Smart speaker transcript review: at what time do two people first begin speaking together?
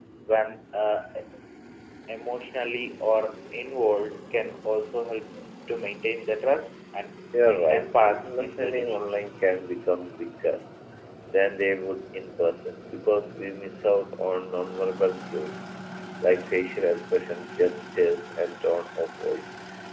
7.7 s

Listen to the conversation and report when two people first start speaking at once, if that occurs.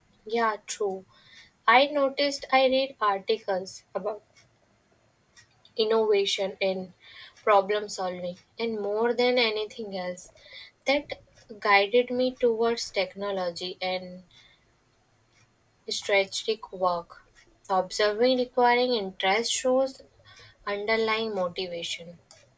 none

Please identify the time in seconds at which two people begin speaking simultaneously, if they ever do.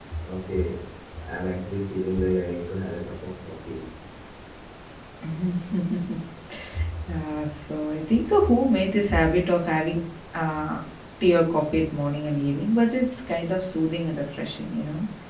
none

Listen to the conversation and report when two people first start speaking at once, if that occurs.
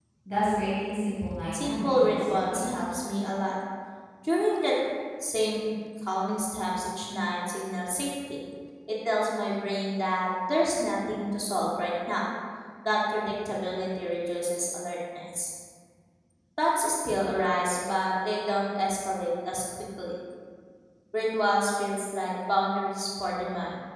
1.5 s

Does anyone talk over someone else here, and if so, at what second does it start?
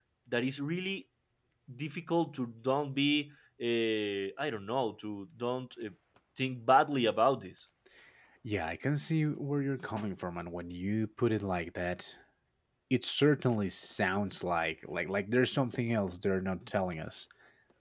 none

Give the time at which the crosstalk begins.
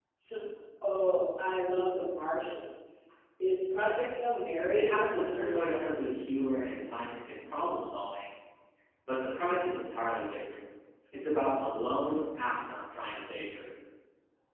4.7 s

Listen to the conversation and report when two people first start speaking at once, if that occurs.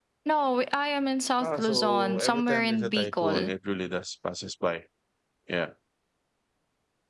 1.4 s

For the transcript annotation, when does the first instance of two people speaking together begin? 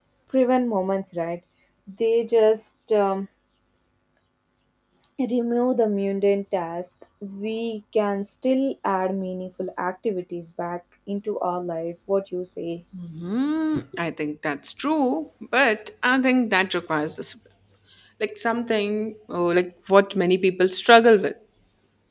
none

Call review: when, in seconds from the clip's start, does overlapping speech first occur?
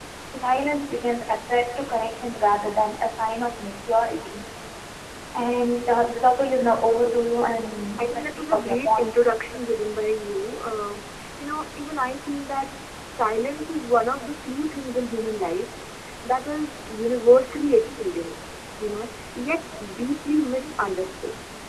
8.0 s

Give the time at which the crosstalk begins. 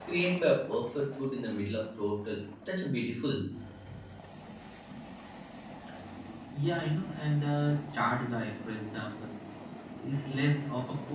none

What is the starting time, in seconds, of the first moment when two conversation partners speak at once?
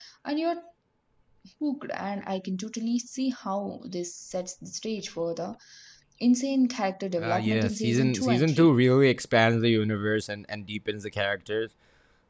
7.2 s

